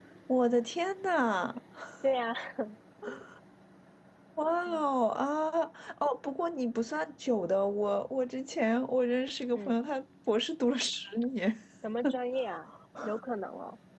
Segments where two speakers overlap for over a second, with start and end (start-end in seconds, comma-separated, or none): none